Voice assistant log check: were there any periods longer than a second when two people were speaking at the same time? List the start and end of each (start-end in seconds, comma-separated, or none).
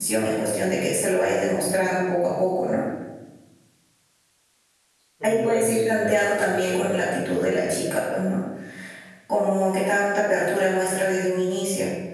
5.2-7.2